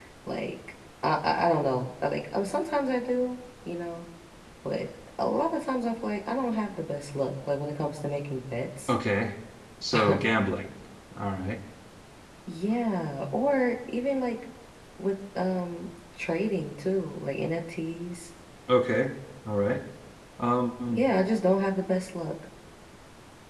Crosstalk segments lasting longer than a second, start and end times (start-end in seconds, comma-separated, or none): none